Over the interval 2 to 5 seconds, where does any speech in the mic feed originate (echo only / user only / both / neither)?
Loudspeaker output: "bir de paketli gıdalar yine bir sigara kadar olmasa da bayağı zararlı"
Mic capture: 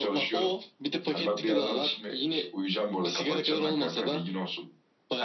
both